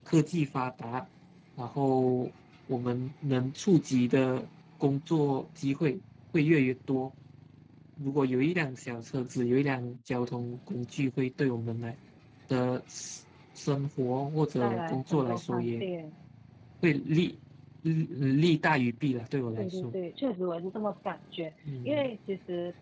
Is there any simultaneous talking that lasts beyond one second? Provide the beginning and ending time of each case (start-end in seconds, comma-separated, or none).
14.6-15.8